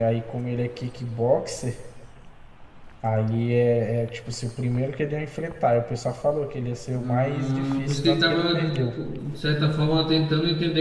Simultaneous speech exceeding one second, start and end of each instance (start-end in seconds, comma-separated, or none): 7.0-8.4